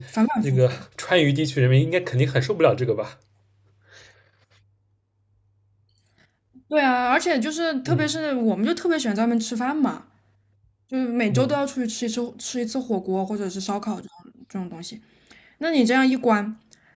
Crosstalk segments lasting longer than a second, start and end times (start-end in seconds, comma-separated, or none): none